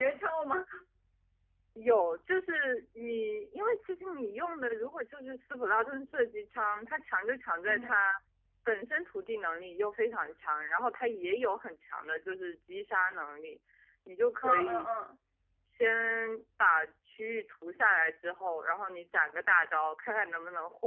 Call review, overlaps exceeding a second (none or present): none